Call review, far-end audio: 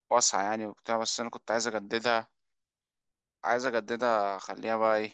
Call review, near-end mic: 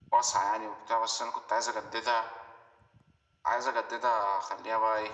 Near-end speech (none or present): none